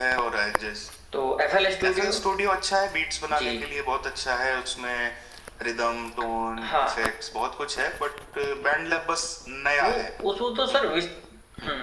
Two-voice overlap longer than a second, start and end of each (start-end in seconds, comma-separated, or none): none